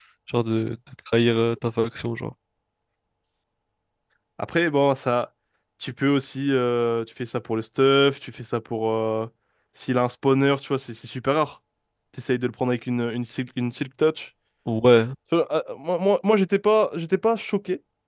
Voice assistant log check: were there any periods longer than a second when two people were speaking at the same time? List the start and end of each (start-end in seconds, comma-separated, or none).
none